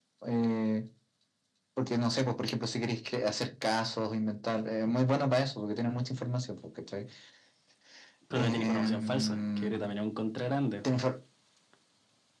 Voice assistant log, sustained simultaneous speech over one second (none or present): present